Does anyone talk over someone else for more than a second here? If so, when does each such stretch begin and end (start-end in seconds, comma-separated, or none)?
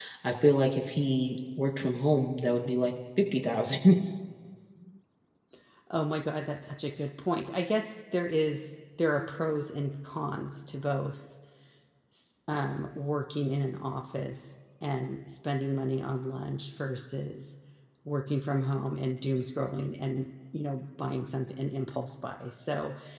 none